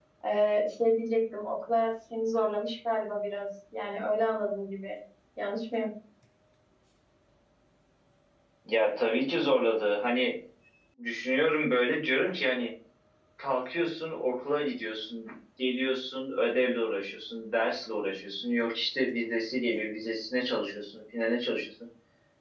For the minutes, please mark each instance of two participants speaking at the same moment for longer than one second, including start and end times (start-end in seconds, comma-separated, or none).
none